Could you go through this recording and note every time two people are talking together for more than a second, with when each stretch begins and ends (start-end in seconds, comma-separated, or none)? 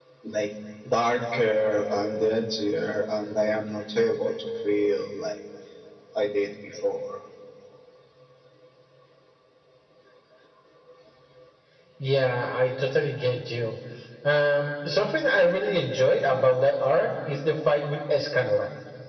none